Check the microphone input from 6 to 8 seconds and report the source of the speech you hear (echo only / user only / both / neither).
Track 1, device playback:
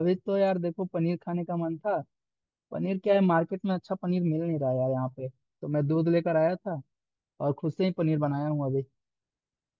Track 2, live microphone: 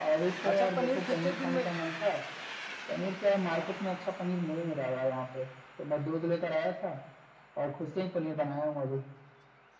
echo only